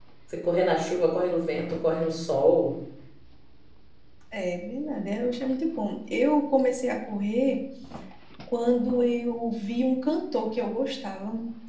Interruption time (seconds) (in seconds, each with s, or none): none